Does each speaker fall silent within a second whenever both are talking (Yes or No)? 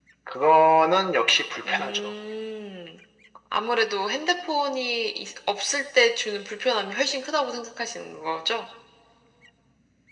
Yes